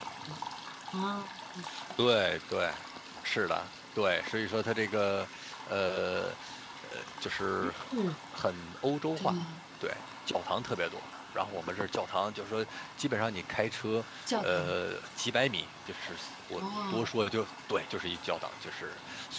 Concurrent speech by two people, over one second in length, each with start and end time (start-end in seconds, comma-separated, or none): none